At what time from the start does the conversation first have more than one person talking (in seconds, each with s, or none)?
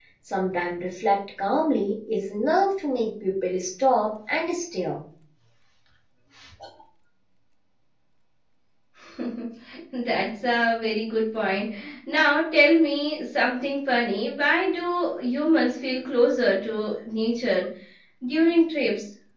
none